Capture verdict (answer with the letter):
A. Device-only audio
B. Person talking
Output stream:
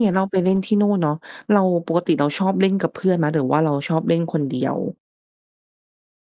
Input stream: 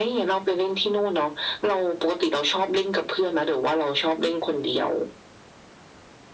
A